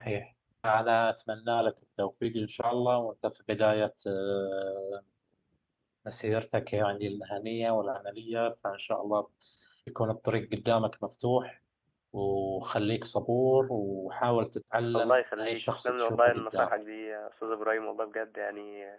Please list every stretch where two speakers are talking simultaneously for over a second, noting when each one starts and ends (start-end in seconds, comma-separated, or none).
15.0-16.7